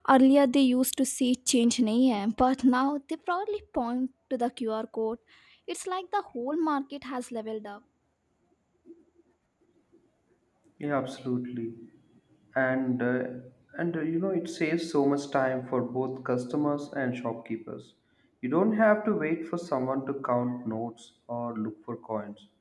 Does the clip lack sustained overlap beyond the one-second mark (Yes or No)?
Yes